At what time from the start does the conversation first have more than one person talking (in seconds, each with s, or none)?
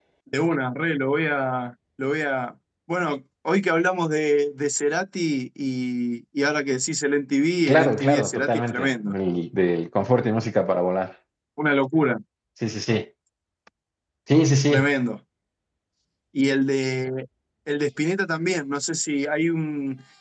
7.7 s